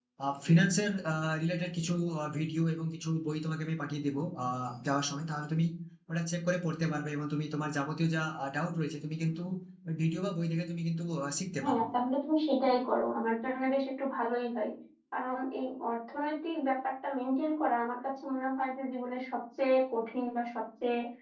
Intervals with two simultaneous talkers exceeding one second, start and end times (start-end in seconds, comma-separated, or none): none